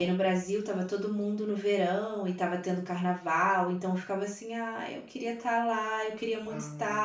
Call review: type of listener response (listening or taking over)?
listening